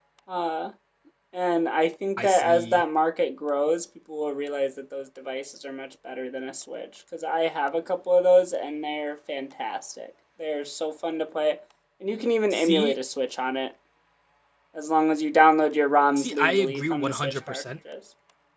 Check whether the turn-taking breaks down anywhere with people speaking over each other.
Yes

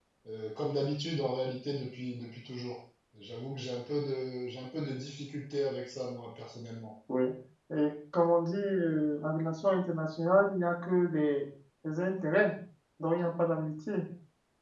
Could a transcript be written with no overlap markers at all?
Yes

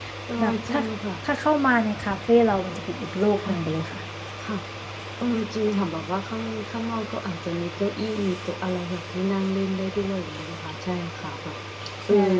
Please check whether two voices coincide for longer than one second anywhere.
No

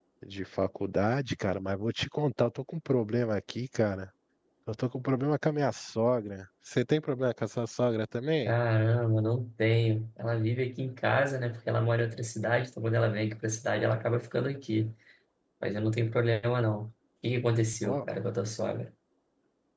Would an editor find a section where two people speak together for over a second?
No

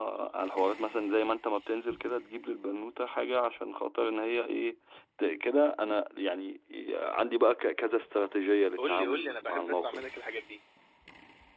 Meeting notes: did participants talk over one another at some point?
Yes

